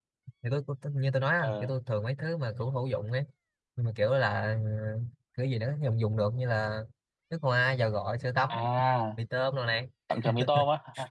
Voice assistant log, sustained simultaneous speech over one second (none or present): none